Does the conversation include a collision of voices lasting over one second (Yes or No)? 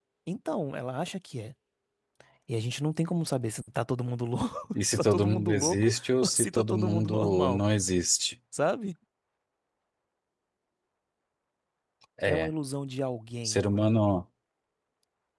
Yes